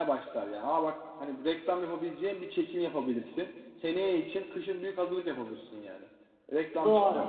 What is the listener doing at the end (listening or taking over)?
listening